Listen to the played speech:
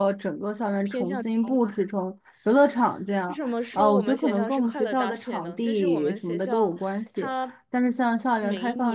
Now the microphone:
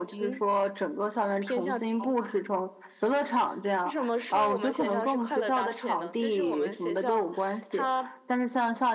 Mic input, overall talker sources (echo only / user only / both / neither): echo only